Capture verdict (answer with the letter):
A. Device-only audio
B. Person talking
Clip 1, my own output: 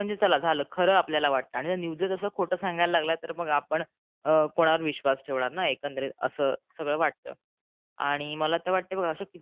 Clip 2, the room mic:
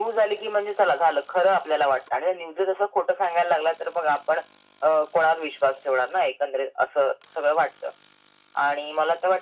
A